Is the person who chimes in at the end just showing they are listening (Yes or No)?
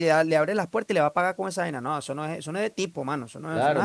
No